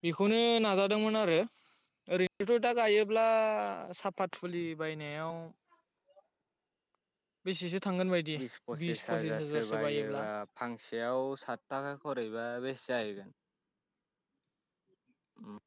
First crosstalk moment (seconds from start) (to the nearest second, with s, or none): 9 s